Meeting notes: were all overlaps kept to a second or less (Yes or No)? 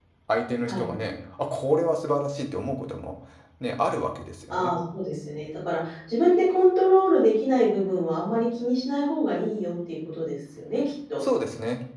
Yes